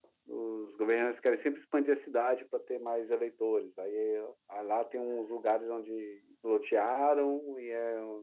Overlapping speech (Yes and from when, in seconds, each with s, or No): No